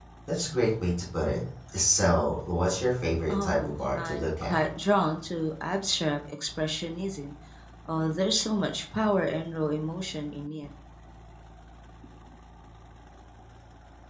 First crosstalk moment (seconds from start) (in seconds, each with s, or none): 3.3 s